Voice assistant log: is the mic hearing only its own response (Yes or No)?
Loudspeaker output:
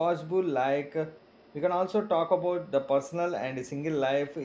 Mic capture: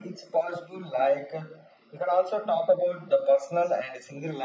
Yes